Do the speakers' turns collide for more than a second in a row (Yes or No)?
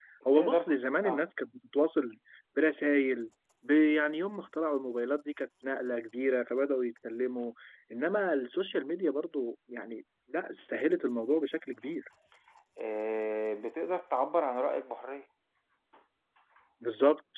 No